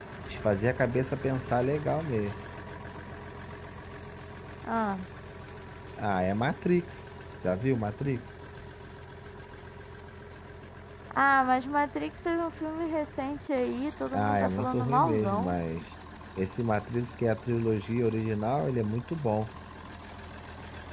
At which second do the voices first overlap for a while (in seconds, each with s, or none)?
14.1 s